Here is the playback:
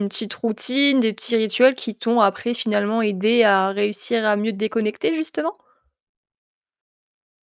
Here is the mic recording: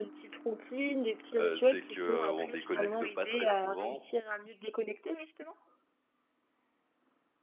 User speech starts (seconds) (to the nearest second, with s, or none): 1 s